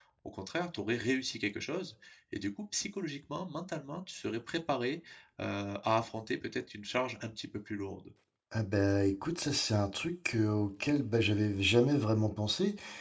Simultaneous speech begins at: none

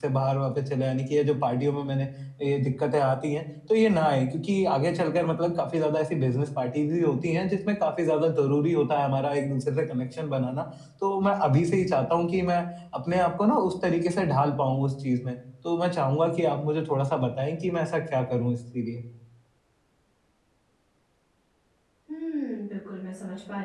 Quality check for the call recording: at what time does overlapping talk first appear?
none

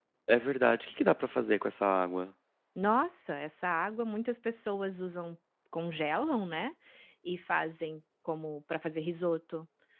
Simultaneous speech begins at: none

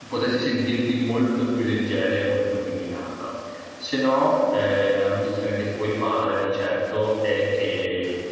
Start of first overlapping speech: none

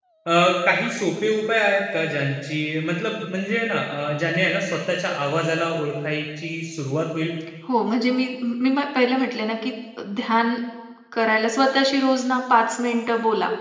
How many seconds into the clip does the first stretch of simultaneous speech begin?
none

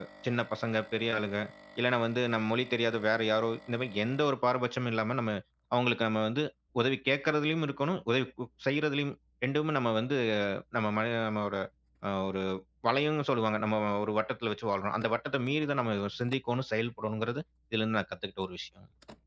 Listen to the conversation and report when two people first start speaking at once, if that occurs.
none

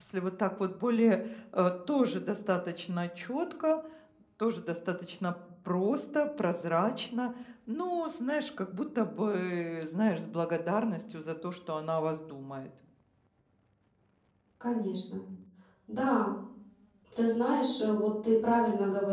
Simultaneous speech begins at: none

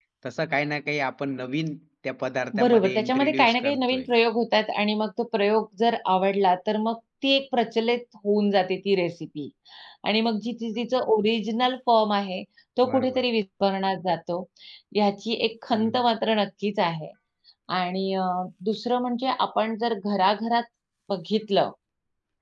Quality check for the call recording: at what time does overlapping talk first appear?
2.6 s

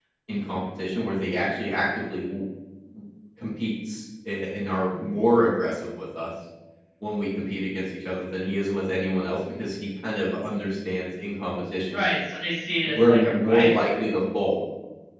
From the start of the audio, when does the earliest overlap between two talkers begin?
12.8 s

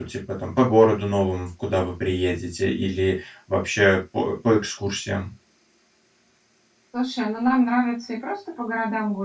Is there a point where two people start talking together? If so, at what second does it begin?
none

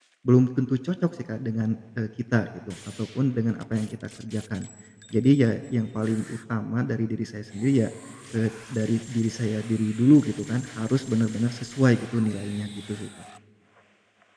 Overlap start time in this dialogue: none

